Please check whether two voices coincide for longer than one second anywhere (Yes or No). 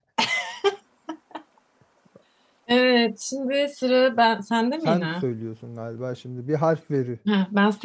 No